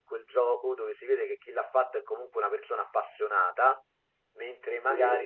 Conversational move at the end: listening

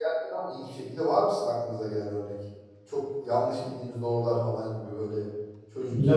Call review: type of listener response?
taking over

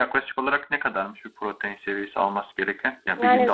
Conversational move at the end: listening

